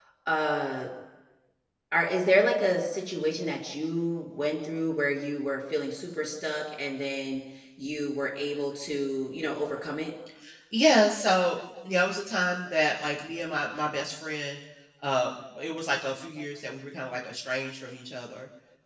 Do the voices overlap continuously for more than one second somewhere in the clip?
No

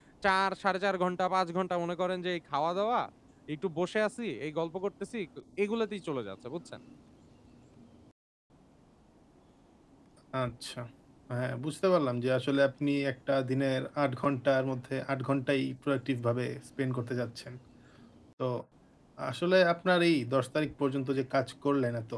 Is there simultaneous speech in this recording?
No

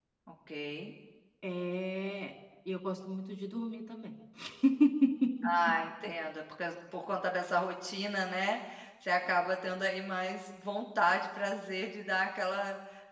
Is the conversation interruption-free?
Yes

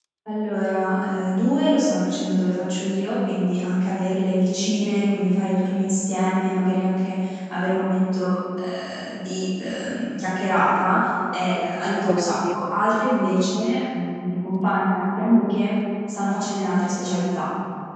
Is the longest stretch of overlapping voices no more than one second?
No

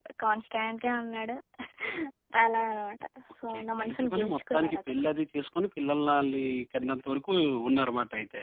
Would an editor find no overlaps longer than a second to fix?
No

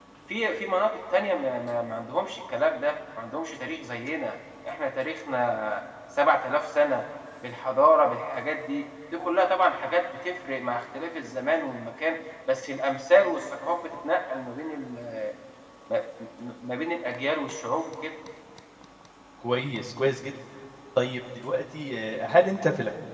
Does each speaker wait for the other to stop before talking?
Yes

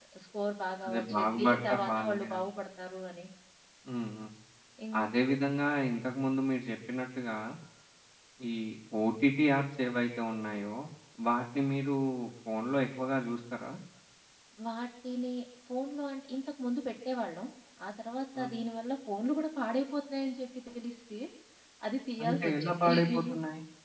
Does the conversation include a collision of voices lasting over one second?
Yes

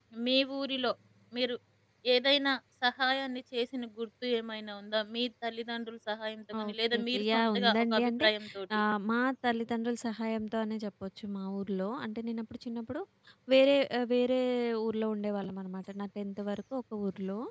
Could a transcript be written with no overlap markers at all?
No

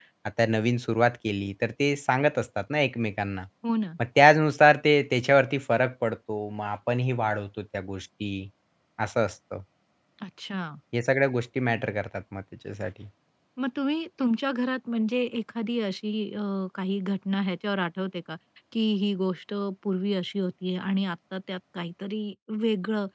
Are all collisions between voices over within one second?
Yes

